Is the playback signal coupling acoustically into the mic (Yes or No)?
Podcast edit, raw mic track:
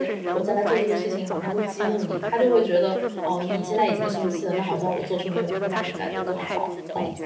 Yes